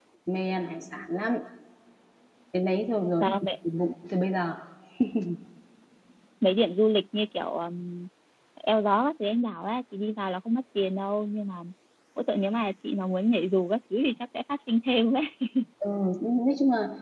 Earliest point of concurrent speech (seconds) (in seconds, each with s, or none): none